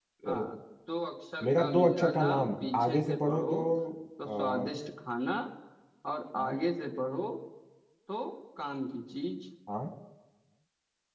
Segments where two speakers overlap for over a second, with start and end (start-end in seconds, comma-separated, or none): 1.4-3.5